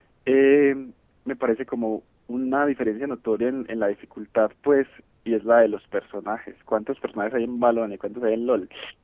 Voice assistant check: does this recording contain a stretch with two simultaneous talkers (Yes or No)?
No